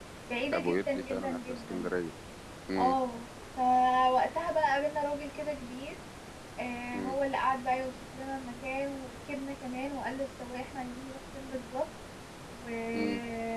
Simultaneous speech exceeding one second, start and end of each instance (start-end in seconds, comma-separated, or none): 0.6-1.9